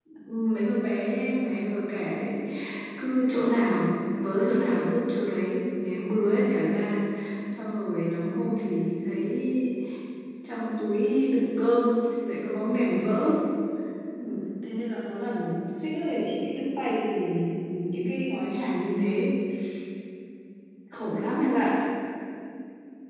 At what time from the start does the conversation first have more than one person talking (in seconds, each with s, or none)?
none